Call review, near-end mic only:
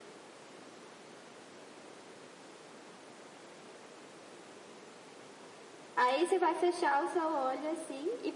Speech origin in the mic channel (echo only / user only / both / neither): user only